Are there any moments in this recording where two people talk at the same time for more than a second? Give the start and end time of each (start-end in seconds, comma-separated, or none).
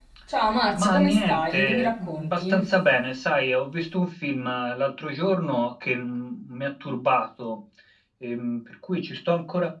0.8-2.6